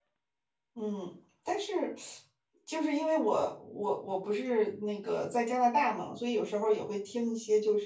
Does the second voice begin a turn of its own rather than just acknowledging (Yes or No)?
No